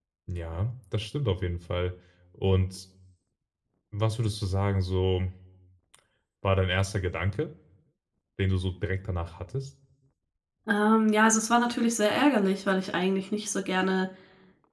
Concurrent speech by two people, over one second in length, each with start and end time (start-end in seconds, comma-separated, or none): none